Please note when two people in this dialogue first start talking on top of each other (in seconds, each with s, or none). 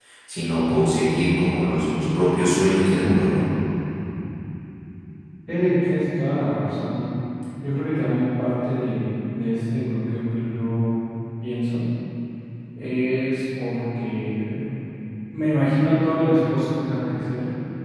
none